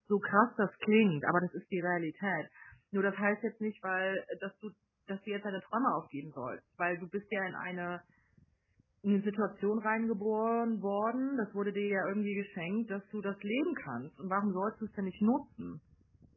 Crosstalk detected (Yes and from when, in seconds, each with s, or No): No